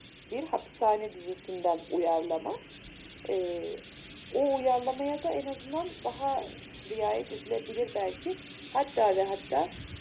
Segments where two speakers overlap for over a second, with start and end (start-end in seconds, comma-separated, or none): none